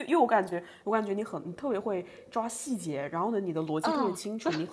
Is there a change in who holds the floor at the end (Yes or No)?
No